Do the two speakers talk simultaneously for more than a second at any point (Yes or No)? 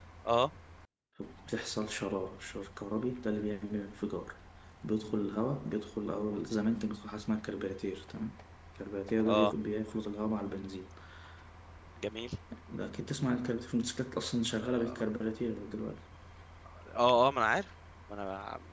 No